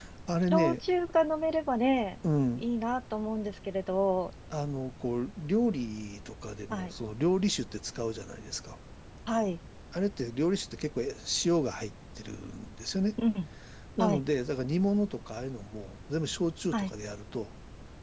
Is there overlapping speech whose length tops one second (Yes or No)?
No